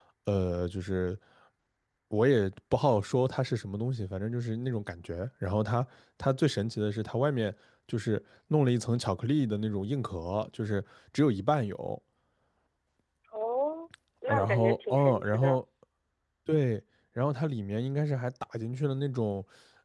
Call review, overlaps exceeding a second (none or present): present